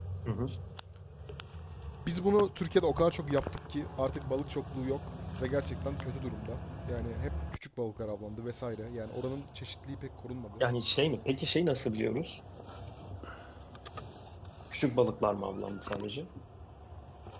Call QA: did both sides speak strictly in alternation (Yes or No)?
Yes